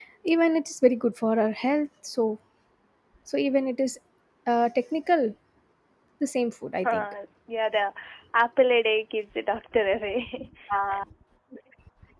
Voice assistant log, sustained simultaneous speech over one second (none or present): none